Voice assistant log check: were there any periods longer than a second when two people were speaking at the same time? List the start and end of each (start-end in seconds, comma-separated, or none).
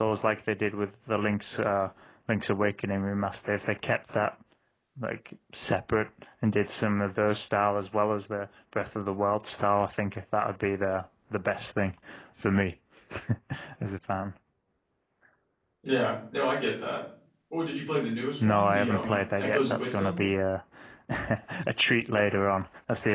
18.4-20.2